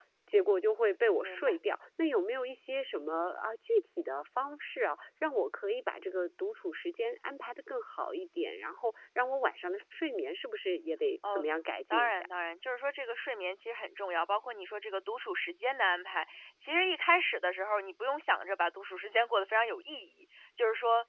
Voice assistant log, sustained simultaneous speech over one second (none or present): none